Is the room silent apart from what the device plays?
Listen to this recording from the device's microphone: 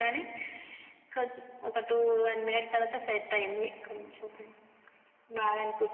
Yes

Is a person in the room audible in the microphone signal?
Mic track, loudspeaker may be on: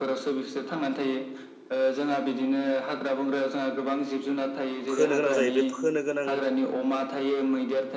Yes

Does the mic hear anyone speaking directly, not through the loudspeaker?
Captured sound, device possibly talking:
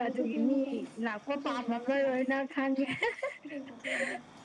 Yes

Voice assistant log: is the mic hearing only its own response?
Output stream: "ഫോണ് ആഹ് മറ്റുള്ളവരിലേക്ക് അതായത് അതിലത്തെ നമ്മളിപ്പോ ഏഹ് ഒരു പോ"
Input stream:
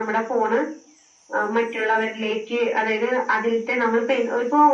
Yes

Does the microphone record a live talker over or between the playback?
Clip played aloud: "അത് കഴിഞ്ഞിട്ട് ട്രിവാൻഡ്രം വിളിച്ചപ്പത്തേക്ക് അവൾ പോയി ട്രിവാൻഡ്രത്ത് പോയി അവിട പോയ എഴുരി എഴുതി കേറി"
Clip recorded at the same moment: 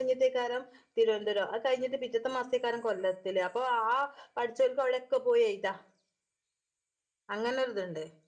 Yes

